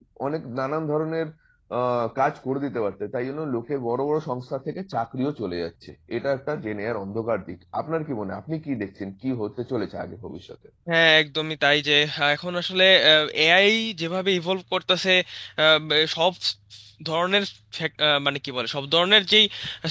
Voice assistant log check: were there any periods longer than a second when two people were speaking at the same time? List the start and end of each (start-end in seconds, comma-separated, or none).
none